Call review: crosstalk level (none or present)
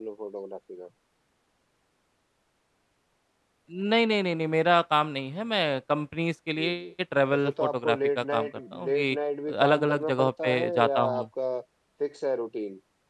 present